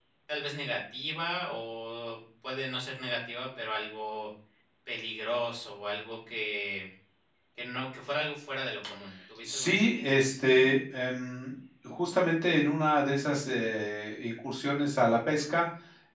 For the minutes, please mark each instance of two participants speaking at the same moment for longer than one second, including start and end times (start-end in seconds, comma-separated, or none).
9.4-10.7